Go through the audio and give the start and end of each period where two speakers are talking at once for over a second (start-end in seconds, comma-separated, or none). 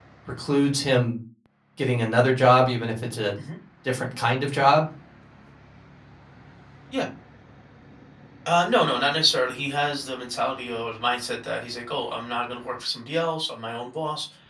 none